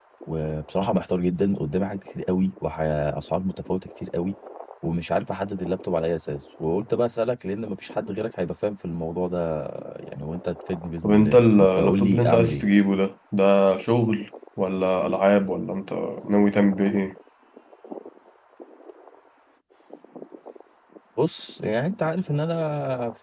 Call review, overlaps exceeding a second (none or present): present